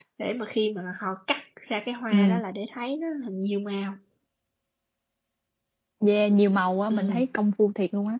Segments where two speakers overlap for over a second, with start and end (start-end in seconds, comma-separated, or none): none